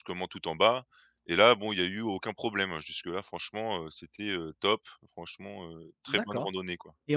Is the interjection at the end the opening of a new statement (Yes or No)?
Yes